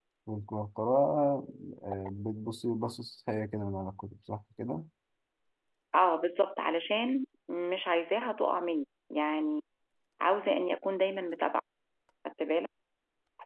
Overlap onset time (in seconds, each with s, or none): none